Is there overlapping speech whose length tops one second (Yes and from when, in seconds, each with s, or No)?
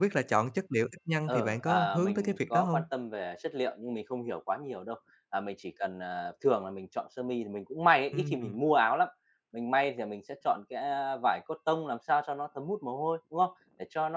Yes, from 1.3 s